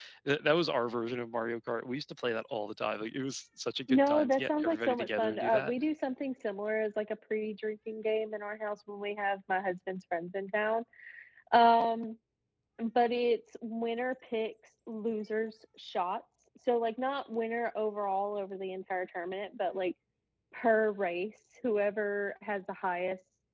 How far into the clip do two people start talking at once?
4 s

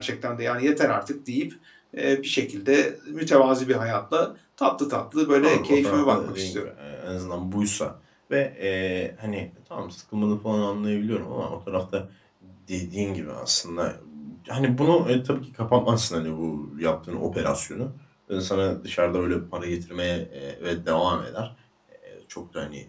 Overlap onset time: 5 s

